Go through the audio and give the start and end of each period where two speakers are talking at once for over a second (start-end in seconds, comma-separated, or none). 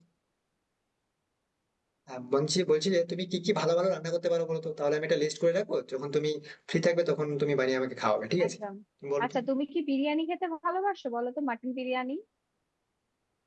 none